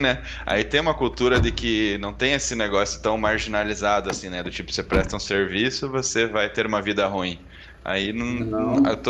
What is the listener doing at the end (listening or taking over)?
listening